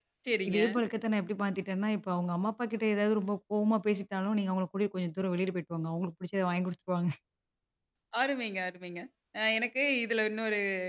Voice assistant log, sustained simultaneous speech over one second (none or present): none